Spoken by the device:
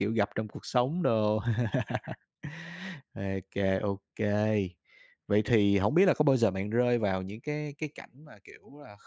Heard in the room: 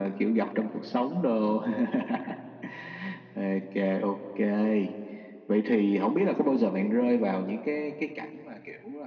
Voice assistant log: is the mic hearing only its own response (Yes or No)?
Yes